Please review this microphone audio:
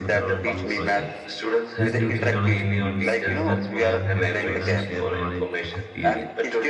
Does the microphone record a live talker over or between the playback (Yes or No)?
Yes